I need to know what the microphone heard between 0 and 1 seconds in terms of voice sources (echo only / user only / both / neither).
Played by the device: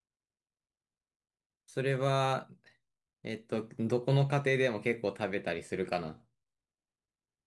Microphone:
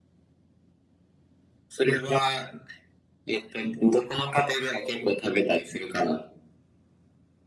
neither